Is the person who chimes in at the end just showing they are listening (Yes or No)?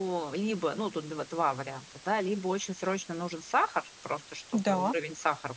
Yes